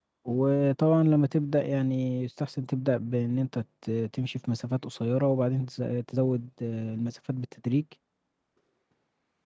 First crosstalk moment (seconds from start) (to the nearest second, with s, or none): none